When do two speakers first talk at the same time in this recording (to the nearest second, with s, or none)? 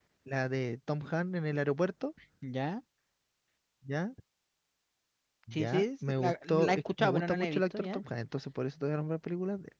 6 s